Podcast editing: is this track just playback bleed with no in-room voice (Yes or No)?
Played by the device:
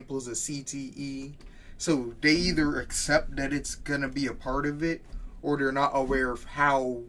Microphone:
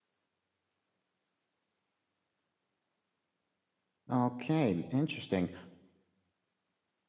No